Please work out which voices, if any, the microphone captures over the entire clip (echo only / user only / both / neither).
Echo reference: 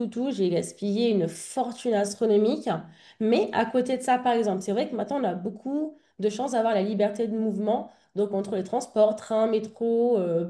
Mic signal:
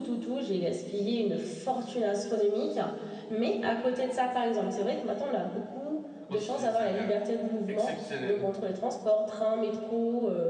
both